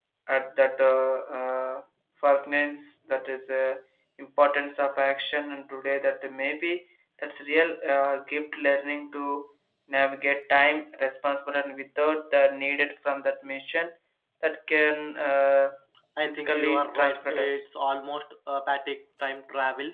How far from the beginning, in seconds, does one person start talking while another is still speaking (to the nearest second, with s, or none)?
16 s